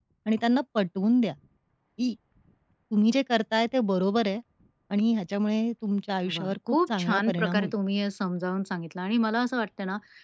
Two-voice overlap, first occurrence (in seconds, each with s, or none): 6.2 s